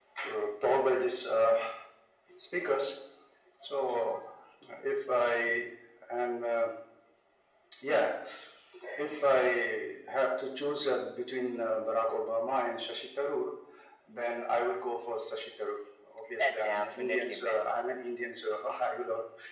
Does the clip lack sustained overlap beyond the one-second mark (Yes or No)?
No